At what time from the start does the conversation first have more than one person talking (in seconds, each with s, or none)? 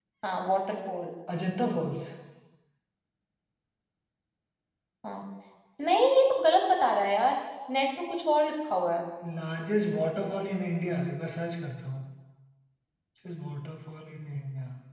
none